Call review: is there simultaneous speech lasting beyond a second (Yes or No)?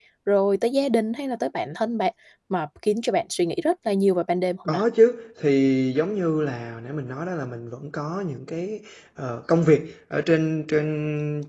No